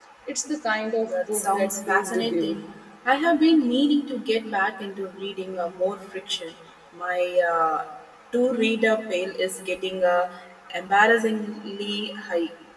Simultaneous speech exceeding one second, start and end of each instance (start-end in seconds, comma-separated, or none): 1.1-2.6